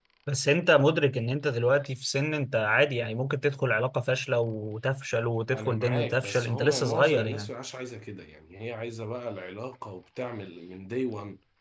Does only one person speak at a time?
No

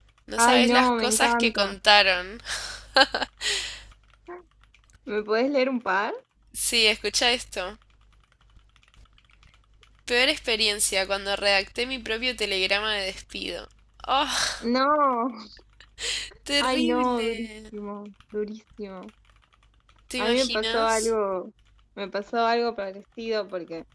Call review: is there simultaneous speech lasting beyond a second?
Yes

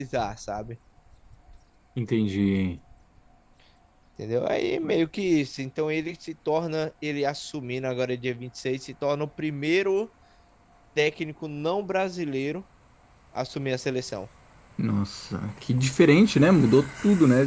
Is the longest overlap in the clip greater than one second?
No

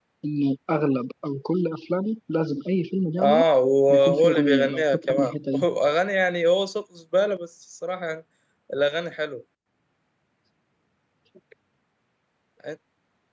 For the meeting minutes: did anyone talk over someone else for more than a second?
Yes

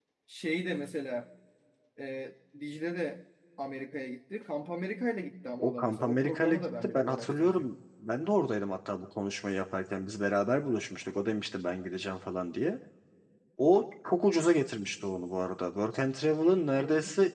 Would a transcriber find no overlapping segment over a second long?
No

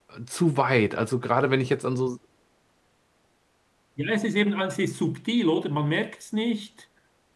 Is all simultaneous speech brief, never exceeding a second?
Yes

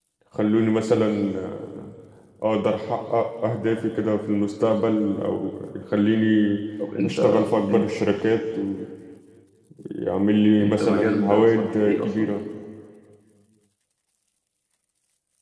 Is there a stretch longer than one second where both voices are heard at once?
Yes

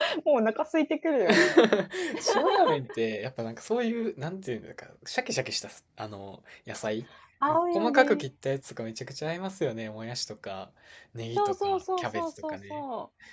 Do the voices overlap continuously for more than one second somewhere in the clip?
Yes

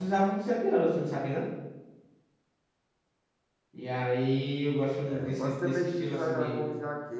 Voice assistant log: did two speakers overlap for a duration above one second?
Yes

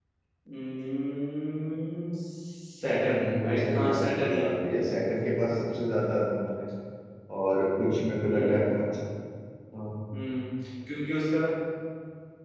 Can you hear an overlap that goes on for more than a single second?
Yes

